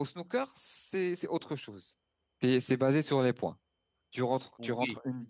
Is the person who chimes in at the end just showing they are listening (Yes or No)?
Yes